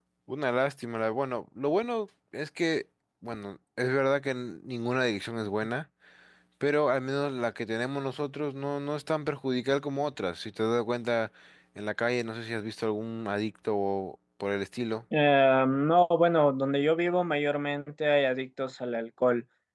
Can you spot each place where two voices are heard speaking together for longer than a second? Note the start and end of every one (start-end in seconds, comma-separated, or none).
none